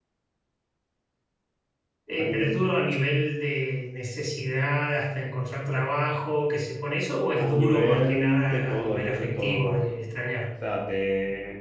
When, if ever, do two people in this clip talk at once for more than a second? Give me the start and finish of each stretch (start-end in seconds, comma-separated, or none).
7.4-9.9